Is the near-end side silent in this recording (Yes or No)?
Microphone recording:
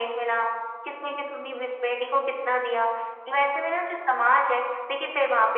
Yes